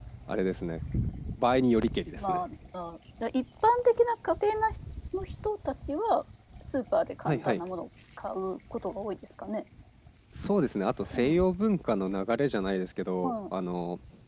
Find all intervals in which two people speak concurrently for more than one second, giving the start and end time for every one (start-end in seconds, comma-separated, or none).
none